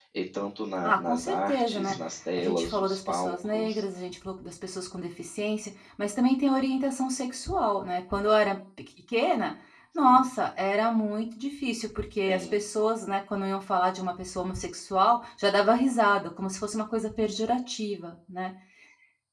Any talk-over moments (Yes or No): Yes